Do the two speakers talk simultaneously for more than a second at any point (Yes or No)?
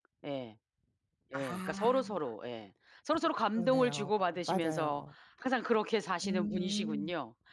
Yes